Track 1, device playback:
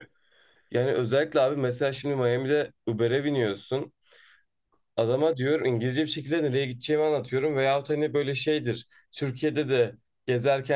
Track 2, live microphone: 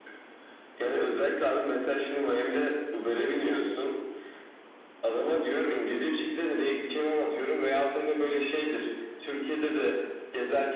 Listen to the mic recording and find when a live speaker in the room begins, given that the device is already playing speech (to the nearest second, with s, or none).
none